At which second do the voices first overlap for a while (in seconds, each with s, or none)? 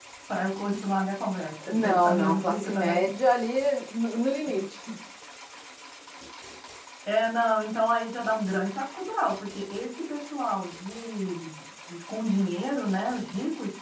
1.6 s